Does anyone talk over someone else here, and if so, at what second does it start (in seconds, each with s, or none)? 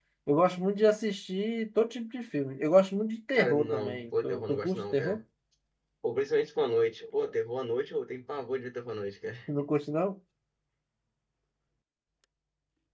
3.3 s